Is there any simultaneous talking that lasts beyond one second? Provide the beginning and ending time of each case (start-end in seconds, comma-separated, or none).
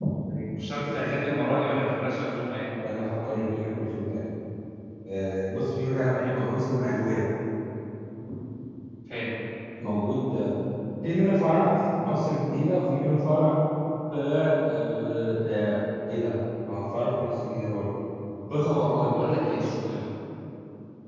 none